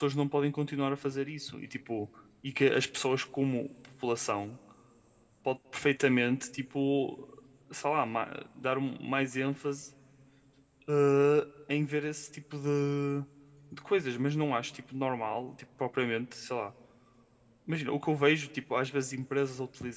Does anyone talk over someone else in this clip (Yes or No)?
No